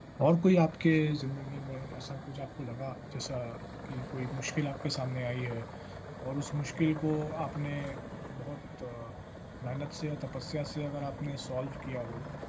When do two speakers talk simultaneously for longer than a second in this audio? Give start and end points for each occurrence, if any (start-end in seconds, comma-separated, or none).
none